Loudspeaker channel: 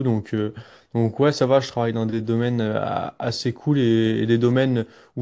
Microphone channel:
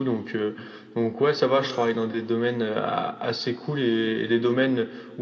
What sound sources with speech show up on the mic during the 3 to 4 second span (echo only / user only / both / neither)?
echo only